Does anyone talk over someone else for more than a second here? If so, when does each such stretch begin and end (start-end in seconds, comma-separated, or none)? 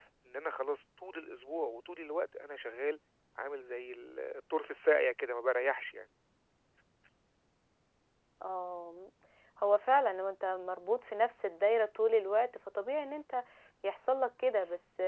none